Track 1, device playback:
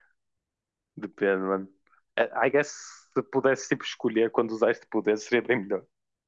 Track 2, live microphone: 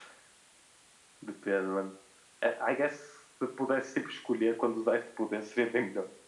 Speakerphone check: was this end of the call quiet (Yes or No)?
Yes